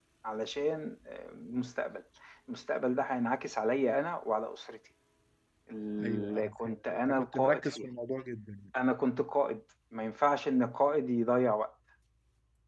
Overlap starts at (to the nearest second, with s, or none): 6 s